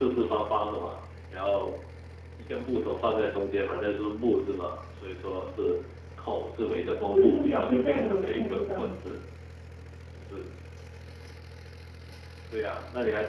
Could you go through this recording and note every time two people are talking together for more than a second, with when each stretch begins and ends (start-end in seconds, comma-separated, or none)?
7.1-8.9